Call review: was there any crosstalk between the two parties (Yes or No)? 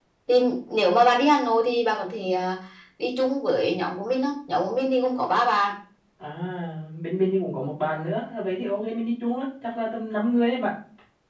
No